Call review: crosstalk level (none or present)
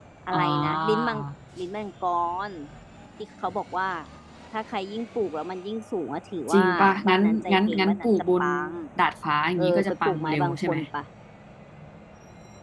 present